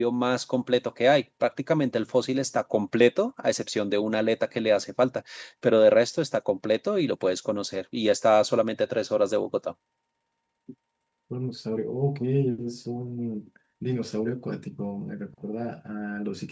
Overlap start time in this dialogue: none

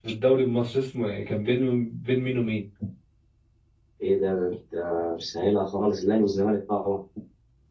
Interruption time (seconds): none

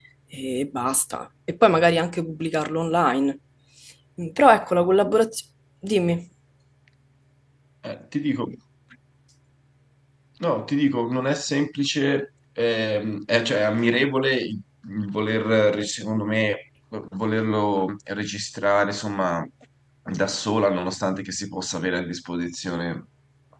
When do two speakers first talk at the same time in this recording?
none

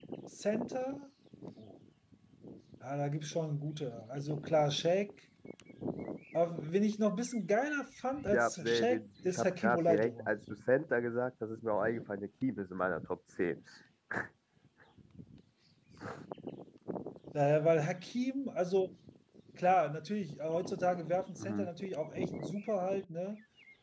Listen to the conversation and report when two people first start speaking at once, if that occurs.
8.3 s

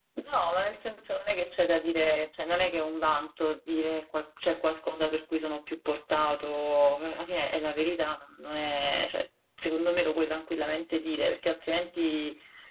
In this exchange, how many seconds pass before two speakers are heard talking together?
none

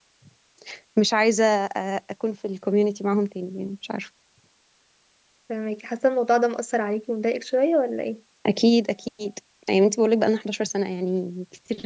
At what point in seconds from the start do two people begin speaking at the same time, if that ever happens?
none

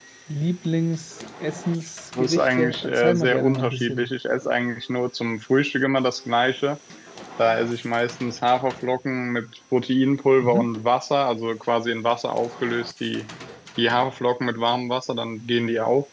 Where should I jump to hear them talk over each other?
2.2 s

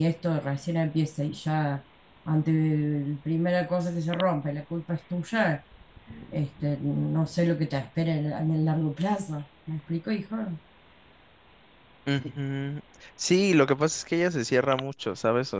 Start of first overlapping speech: none

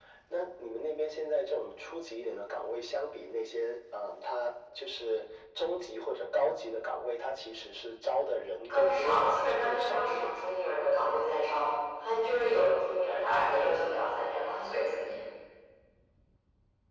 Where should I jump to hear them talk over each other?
8.7 s

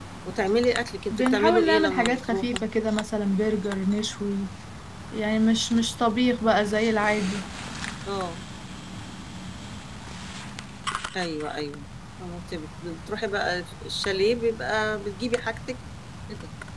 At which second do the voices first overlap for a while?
1.1 s

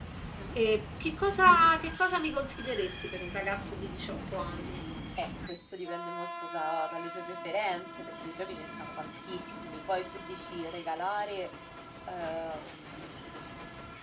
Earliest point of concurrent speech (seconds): none

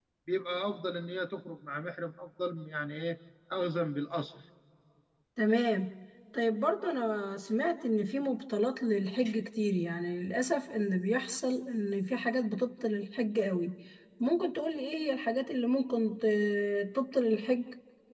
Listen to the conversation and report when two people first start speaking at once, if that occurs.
none

